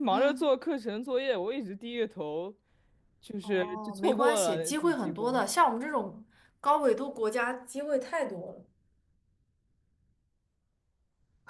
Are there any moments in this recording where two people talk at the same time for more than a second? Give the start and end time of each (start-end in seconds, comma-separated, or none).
3.4-5.4